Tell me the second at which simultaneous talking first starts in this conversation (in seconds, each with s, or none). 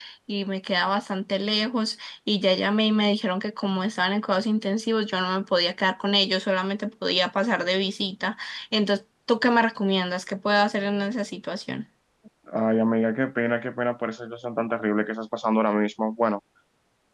none